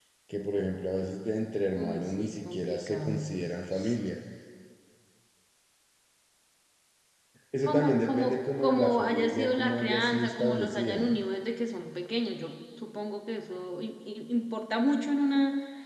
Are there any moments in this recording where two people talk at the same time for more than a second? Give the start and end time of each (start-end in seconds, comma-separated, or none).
1.8-3.5, 7.7-11.2